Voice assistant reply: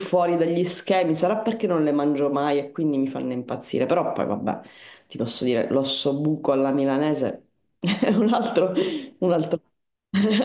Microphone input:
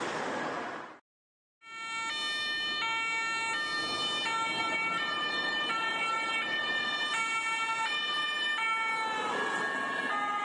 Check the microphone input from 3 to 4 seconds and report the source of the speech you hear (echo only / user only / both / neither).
neither